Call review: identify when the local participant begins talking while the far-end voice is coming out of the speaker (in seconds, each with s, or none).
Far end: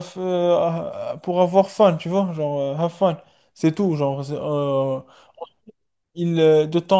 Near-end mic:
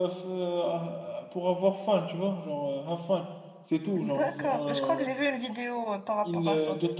3.9 s